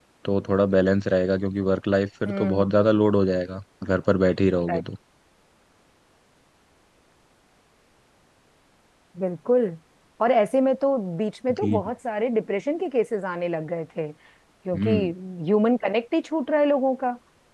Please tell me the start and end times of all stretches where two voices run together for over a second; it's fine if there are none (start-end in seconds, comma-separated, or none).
none